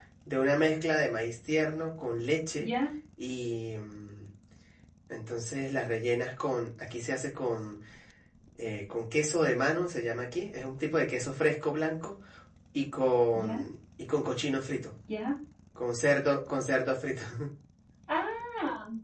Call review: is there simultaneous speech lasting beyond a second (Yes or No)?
No